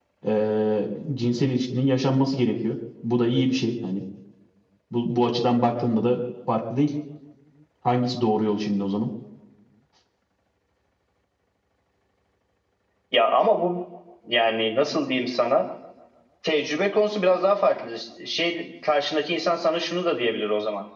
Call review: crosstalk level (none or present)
none